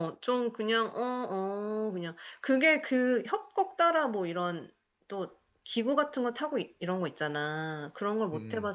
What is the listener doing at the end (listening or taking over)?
listening